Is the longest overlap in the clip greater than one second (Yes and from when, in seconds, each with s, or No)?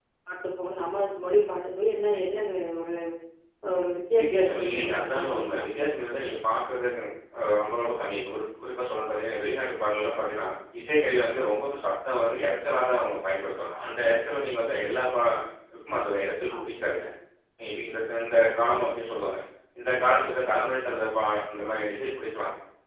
Yes, from 4.2 s